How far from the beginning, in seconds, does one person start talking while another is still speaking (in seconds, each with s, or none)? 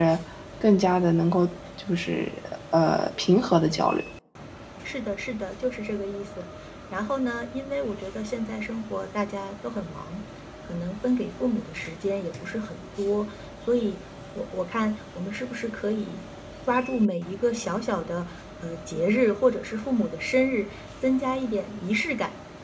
none